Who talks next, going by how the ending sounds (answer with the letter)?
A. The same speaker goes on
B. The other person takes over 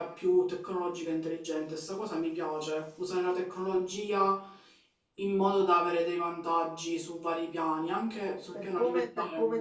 B